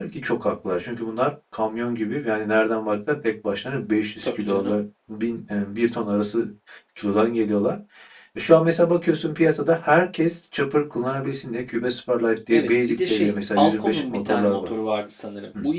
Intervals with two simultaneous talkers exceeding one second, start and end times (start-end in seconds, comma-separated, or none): 12.5-14.7